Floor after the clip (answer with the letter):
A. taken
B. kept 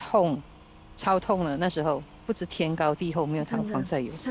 A